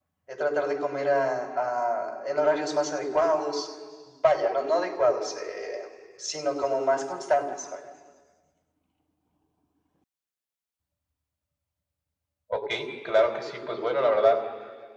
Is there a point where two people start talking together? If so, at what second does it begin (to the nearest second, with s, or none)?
none